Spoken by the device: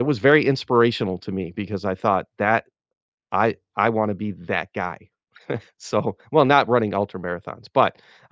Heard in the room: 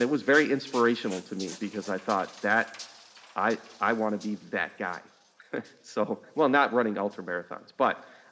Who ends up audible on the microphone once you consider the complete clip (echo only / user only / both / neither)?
echo only